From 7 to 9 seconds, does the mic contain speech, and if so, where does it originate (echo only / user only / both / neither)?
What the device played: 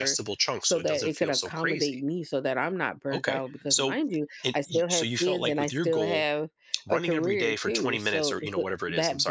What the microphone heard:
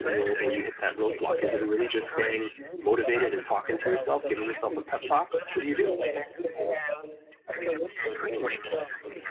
echo only